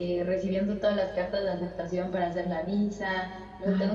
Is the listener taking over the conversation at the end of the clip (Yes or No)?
No